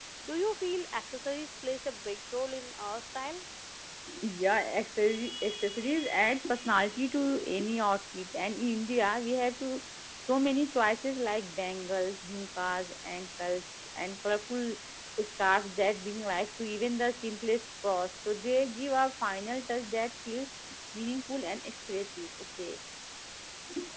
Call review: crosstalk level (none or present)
none